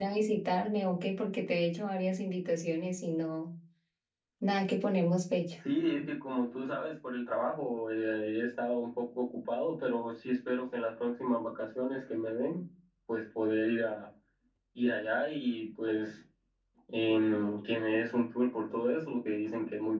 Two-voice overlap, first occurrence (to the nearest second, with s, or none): none